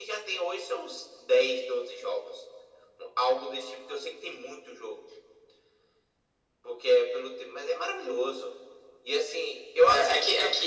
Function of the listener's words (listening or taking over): taking over